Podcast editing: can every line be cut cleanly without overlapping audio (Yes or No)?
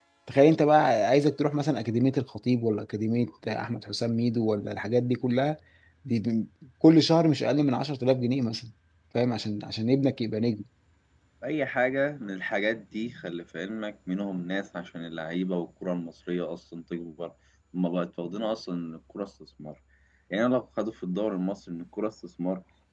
Yes